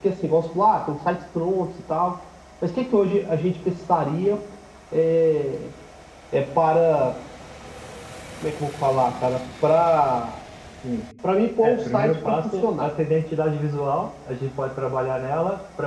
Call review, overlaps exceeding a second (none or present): present